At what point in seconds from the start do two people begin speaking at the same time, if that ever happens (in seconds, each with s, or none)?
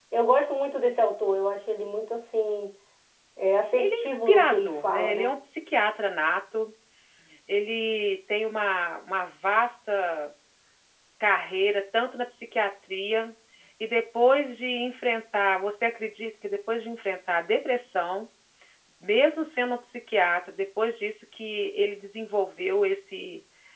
3.8 s